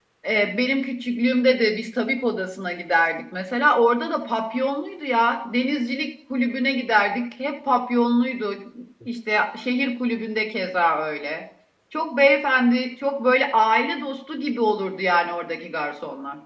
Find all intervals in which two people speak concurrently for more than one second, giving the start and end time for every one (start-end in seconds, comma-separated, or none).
none